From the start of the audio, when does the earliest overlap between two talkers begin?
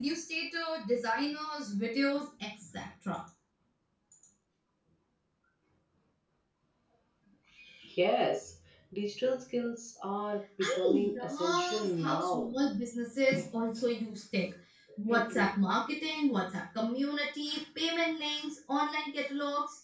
10.6 s

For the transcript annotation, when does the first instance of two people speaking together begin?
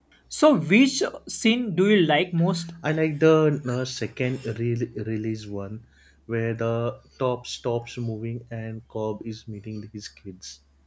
none

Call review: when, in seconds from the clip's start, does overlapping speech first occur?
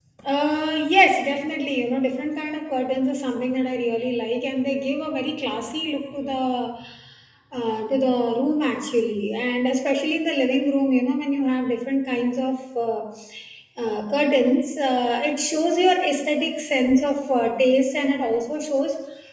none

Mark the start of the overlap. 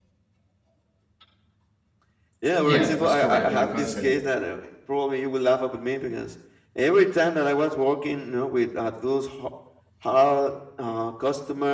2.6 s

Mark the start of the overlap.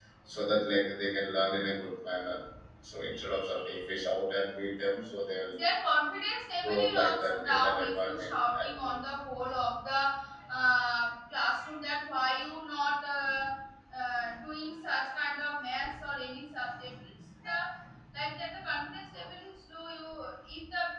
6.6 s

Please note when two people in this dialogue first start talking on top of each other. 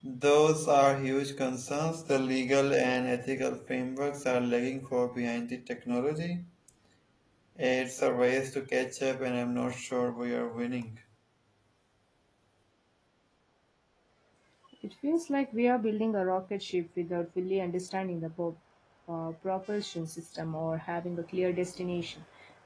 none

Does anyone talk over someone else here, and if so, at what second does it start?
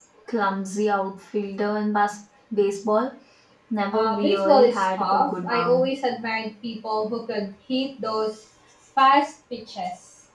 3.9 s

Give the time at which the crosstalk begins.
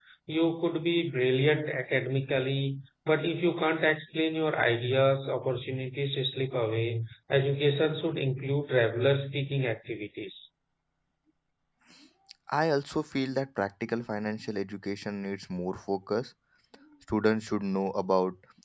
none

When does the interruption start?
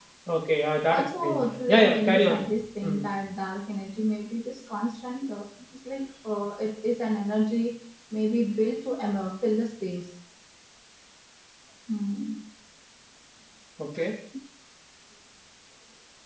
0.9 s

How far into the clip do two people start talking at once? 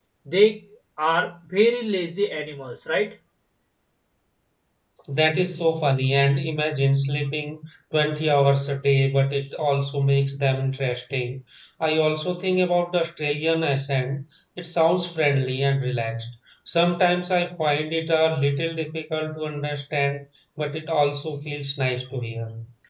none

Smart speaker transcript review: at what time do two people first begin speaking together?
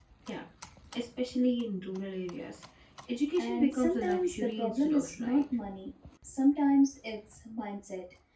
3.4 s

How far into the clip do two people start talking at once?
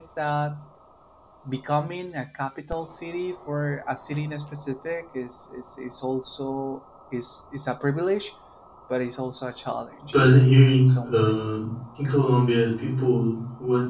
10.1 s

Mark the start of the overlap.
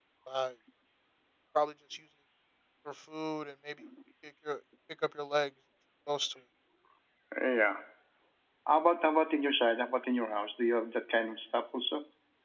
none

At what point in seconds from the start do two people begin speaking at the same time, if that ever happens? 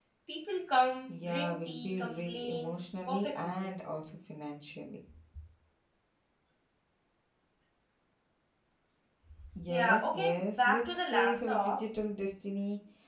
1.2 s

